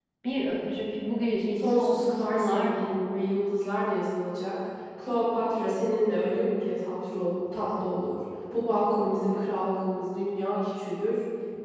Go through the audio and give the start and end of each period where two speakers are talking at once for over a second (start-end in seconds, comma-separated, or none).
1.6-3.0